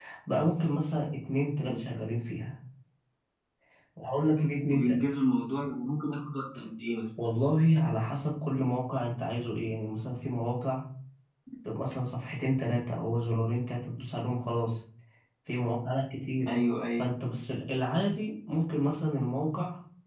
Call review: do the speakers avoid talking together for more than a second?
Yes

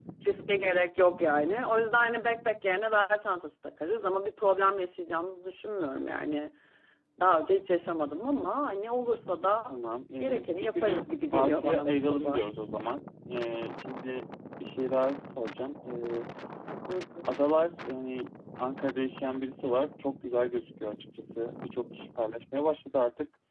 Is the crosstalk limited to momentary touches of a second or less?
No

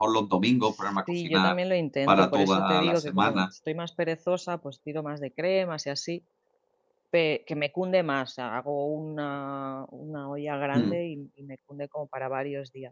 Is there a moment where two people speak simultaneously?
Yes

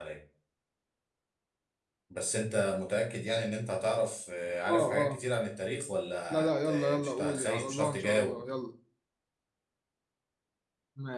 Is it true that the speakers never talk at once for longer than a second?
No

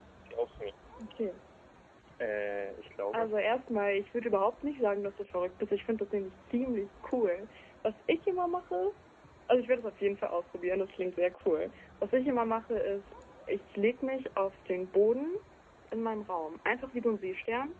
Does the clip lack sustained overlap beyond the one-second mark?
Yes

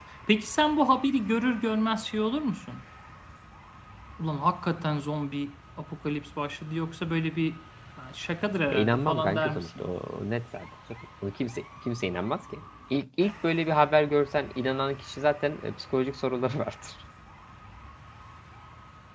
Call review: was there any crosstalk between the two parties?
Yes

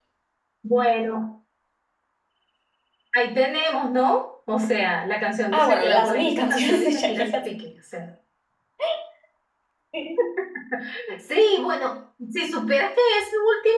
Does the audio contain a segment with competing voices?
Yes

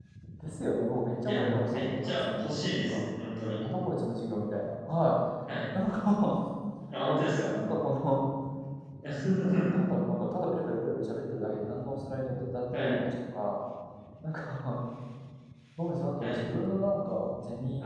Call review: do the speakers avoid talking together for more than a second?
No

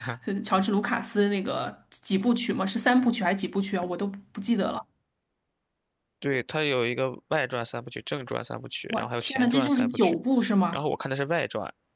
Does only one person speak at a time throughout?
No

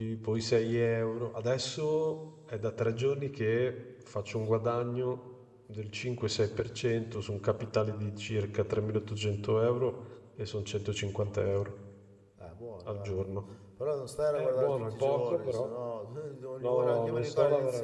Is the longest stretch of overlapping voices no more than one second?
No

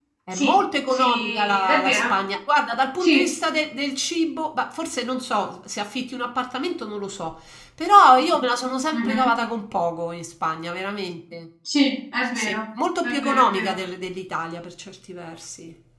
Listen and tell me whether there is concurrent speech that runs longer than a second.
Yes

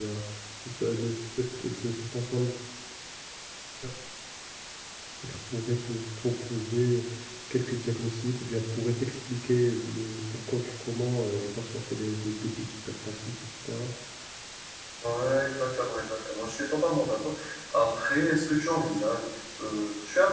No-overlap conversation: Yes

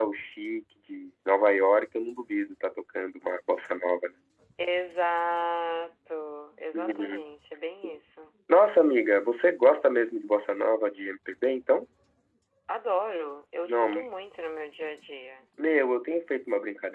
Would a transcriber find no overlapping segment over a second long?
Yes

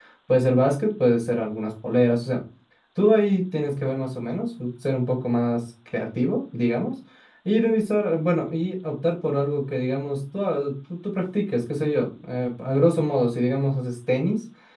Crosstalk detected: No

